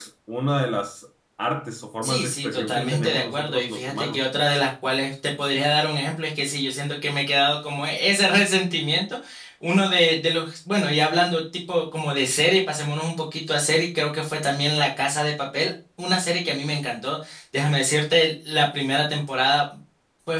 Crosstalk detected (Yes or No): Yes